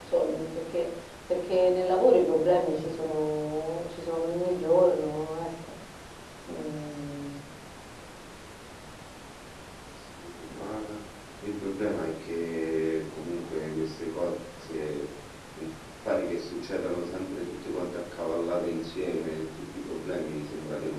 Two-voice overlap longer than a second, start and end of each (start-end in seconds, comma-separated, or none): none